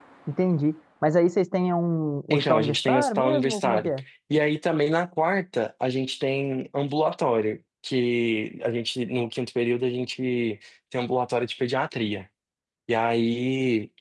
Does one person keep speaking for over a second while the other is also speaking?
Yes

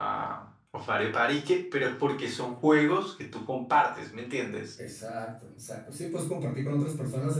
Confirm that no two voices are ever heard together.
Yes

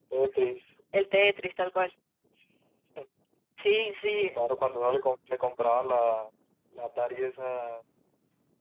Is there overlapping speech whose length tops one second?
No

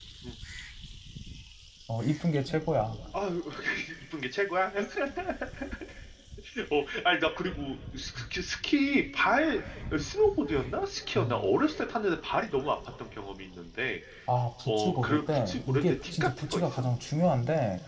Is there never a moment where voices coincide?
No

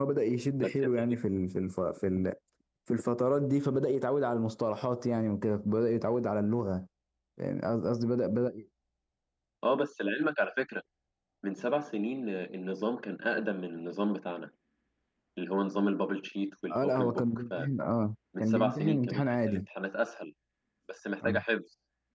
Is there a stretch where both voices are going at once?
Yes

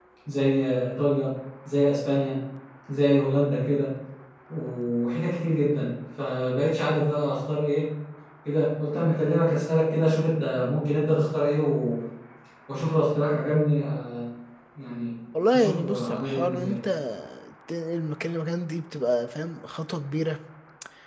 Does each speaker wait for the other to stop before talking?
No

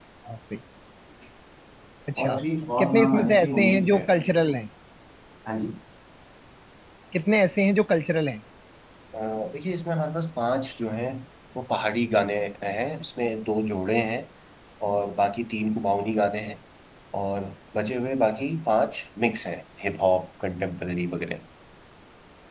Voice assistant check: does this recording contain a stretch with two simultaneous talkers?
Yes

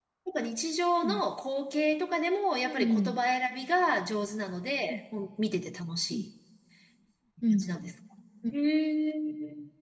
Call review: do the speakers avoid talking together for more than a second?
Yes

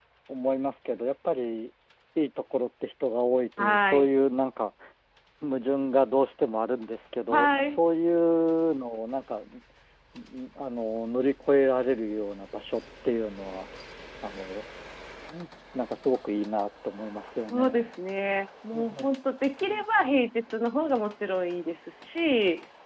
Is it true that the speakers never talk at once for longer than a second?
Yes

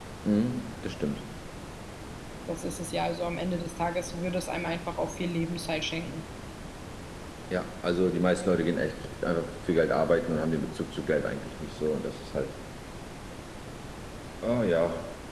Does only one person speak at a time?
Yes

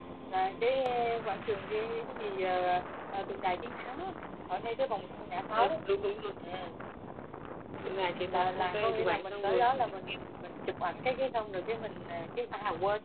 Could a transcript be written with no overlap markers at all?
No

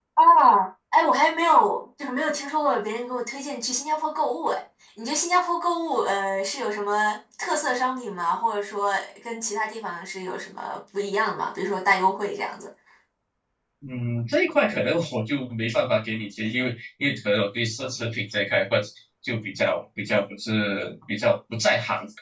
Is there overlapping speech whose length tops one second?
No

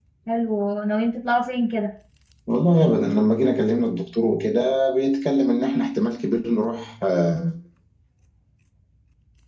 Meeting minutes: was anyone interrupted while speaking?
No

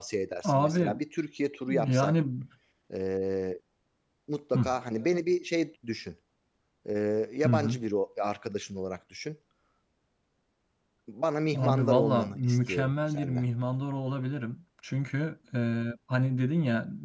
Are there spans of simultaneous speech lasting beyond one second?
Yes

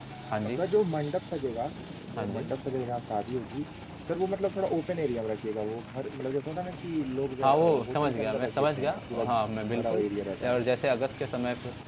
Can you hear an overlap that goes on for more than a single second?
Yes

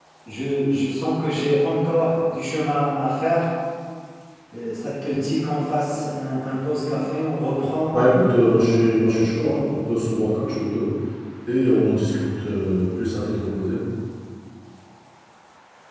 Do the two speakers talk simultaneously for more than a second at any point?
No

